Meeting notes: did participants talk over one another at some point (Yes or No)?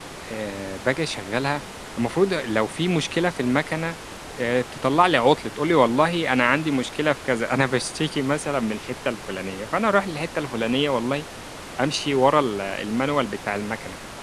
No